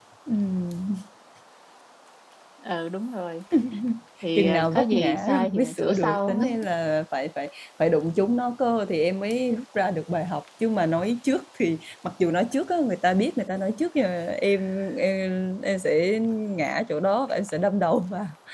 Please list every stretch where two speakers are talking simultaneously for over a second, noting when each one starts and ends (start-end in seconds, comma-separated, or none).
4.4-6.4